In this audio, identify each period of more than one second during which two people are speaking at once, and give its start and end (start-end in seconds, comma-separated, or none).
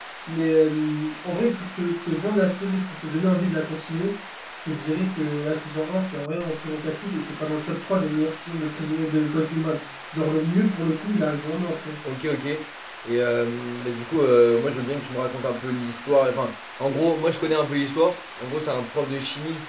none